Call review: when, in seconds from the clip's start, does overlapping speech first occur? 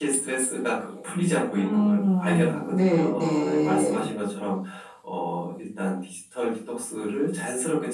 1.5 s

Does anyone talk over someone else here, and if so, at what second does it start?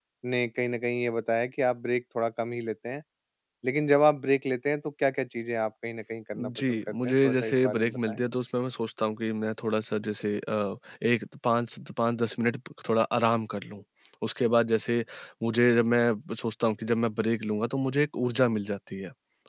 6.4 s

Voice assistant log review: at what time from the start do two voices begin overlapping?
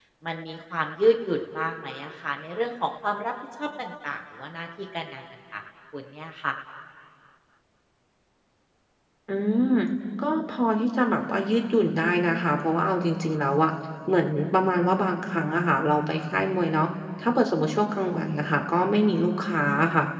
none

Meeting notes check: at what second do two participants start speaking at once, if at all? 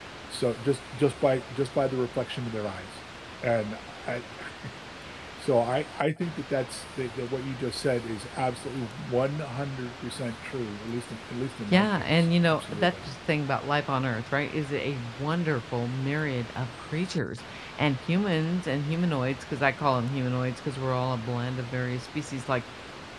11.7 s

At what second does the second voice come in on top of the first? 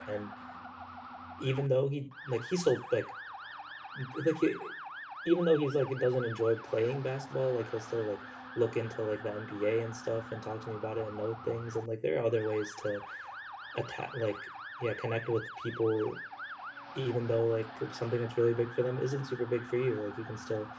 none

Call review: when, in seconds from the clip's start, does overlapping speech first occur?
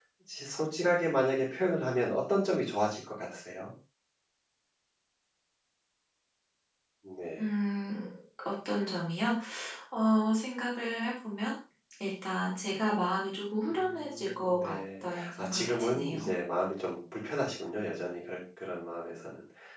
13.7 s

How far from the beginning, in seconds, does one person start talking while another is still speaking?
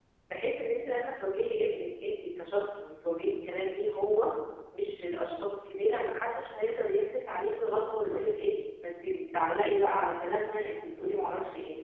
none

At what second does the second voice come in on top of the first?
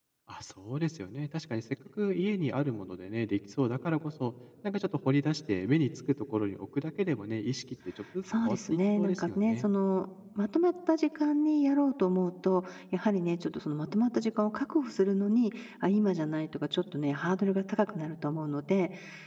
8.3 s

